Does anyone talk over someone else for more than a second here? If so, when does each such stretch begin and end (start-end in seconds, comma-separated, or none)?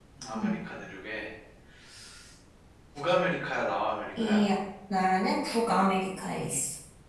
none